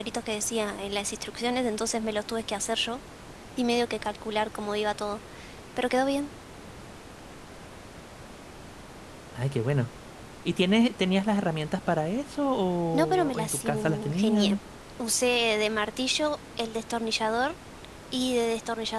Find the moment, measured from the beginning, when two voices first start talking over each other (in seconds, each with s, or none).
12.9 s